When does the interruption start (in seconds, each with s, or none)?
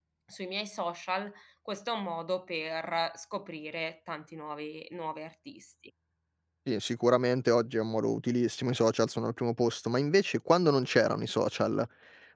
none